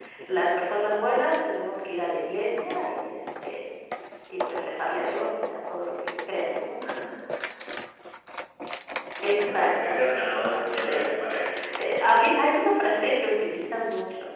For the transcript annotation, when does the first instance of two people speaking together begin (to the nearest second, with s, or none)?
10 s